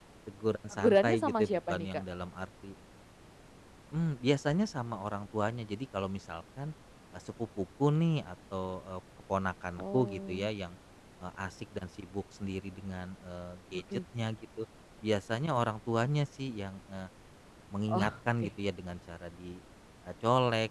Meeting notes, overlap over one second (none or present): present